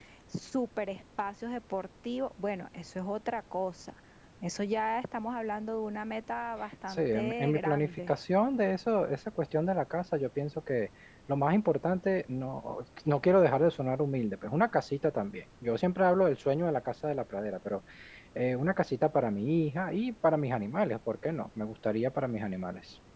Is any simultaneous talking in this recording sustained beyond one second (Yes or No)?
Yes